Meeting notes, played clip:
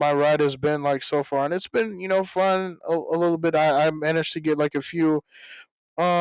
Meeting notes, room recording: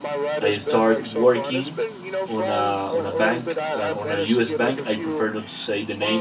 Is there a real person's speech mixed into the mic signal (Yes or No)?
Yes